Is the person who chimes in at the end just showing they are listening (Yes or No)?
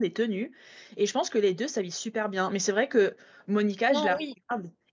Yes